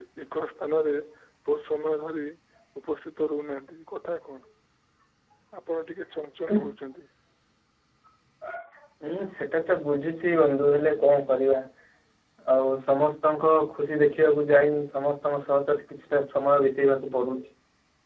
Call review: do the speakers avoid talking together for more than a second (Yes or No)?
Yes